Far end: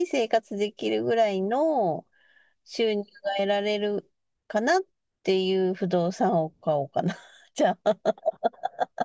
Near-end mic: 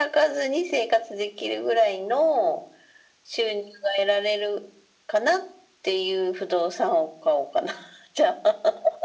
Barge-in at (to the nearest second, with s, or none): none